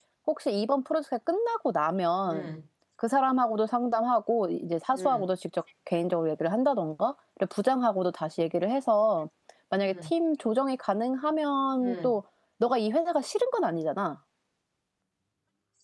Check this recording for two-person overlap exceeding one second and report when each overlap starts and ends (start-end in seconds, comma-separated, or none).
none